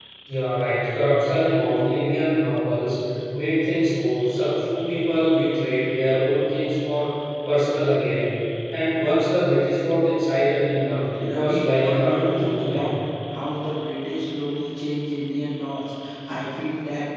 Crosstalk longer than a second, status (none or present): present